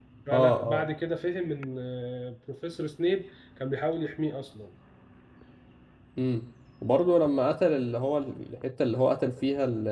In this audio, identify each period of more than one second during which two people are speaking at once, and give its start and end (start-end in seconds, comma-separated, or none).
none